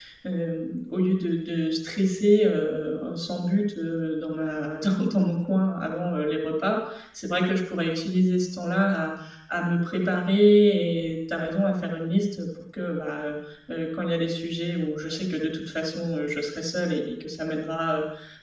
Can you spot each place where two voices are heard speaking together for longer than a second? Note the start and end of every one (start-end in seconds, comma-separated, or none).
none